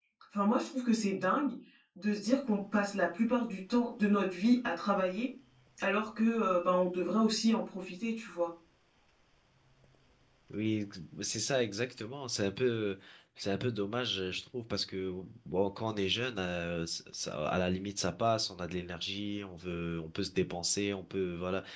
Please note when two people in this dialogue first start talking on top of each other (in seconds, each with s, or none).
none